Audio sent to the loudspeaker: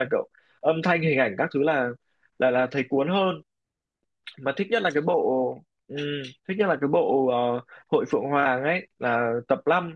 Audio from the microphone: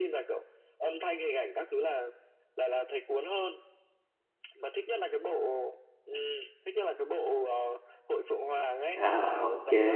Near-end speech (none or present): present